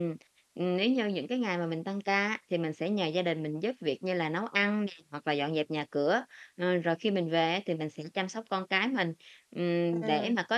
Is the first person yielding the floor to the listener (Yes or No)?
No